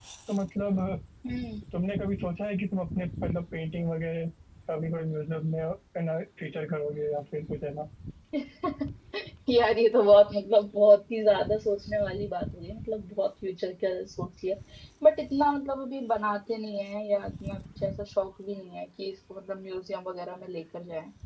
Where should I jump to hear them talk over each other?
none

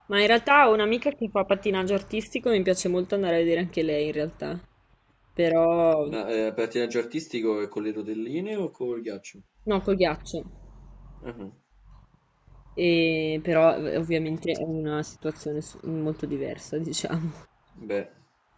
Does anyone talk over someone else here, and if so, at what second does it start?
none

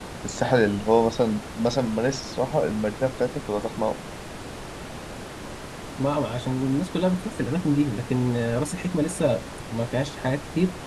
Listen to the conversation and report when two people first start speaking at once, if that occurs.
none

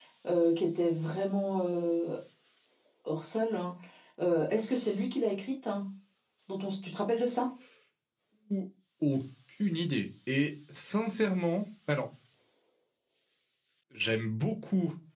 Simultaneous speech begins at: none

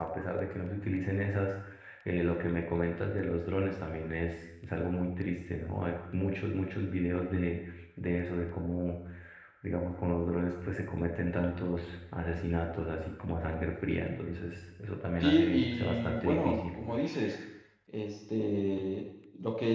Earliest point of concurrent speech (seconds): 15.2 s

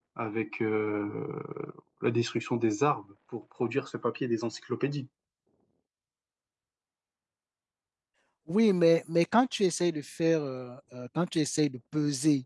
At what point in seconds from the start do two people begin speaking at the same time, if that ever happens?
none

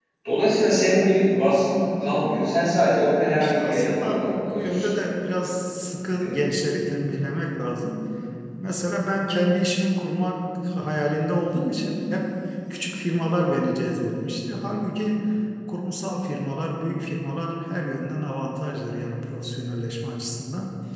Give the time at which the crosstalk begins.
3.1 s

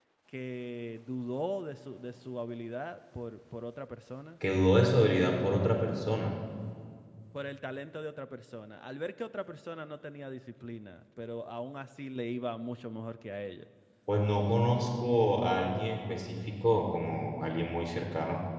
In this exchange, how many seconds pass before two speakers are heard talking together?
none

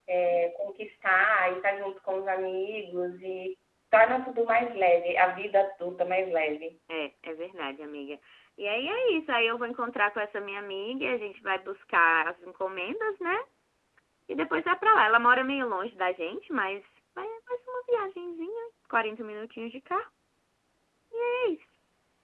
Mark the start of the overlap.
none

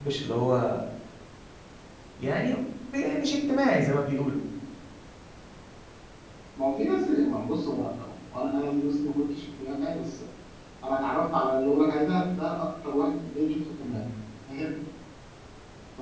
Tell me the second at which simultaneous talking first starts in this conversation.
none

